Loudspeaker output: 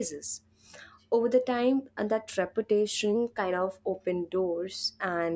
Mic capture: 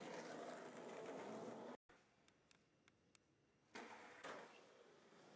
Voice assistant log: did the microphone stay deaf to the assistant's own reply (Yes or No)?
Yes